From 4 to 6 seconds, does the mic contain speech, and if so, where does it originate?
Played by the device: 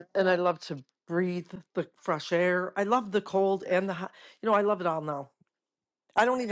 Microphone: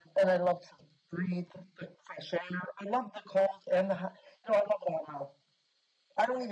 echo only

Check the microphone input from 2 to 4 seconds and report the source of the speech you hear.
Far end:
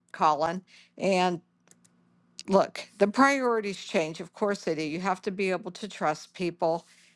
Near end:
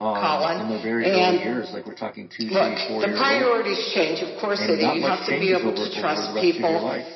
both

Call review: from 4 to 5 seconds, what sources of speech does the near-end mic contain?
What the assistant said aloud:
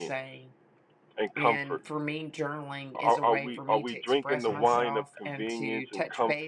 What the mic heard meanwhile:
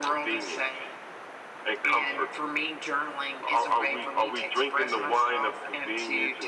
echo only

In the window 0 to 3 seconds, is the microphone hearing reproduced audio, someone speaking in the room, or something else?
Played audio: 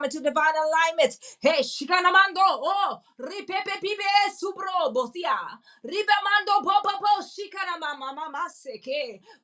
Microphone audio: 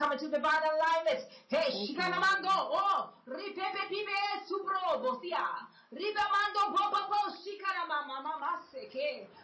both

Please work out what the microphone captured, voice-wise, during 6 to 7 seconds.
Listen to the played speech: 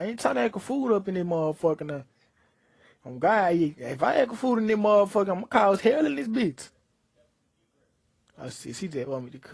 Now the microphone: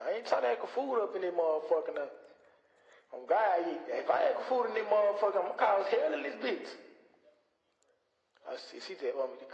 echo only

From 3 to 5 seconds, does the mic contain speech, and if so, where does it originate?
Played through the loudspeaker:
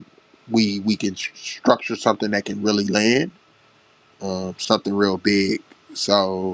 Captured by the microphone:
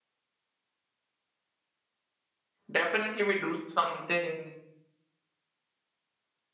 user only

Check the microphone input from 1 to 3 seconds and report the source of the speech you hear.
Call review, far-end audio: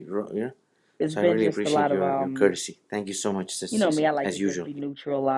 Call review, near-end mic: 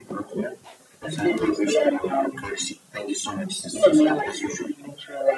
echo only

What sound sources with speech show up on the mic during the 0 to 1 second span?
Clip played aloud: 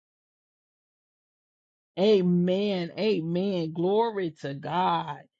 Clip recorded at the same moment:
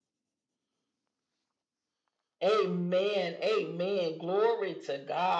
neither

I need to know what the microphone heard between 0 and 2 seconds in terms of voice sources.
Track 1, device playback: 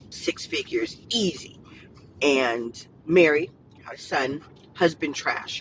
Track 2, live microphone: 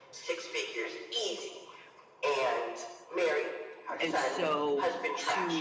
echo only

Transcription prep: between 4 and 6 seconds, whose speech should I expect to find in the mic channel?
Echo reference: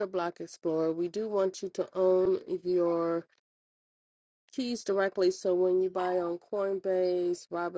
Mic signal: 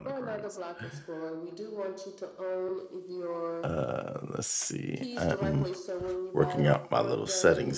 both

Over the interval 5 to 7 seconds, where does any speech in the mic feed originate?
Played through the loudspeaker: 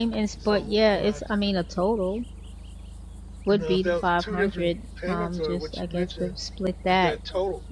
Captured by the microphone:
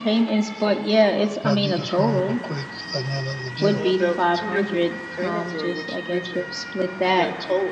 echo only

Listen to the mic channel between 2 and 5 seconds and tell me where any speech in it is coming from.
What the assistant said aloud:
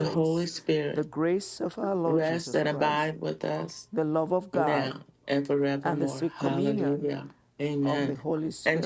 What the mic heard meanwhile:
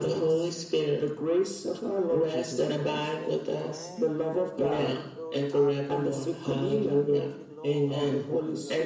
both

